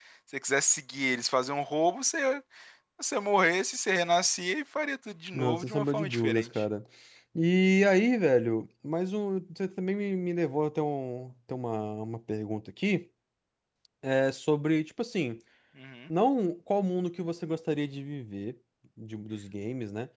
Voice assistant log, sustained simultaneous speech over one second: present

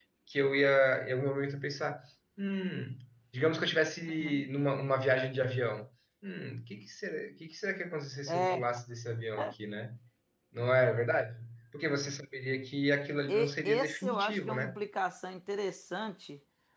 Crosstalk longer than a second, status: present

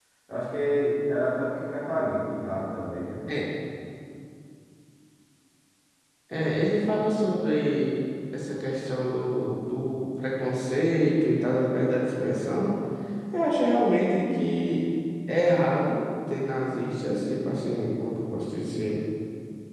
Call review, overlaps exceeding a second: none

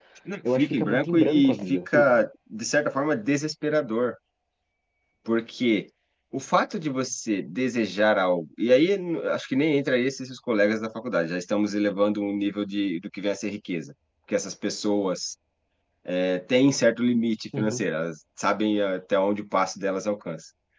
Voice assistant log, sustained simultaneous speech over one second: present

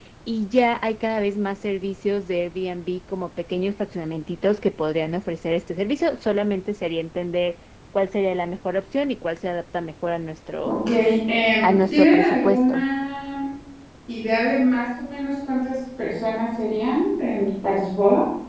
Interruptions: present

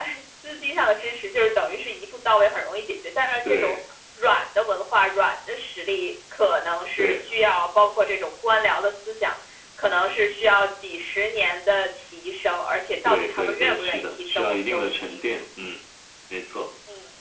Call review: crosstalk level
present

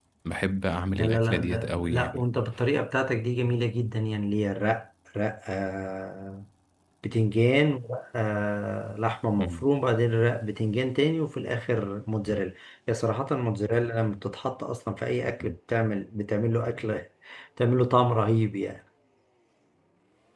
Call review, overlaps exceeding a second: present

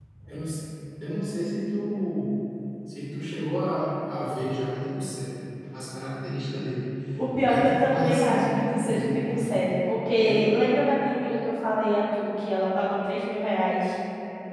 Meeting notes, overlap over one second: present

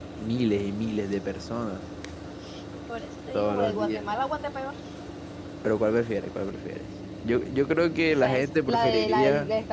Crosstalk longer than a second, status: present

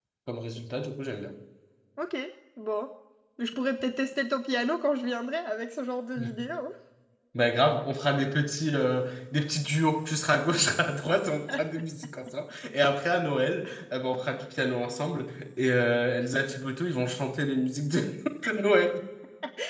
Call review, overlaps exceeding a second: none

